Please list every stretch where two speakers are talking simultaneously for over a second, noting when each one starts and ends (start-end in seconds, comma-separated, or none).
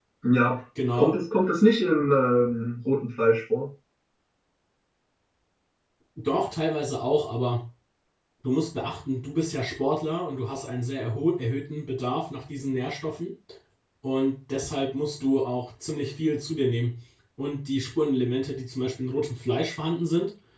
none